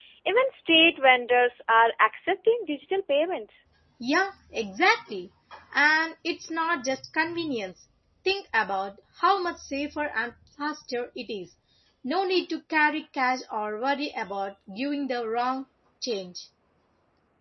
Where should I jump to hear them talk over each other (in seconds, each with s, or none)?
none